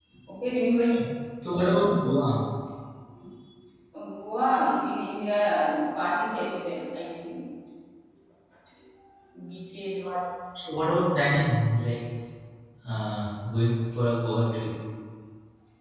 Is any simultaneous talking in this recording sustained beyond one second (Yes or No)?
No